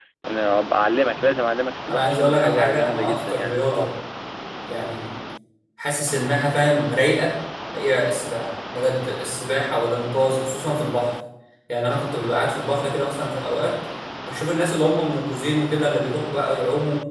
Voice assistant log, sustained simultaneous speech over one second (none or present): present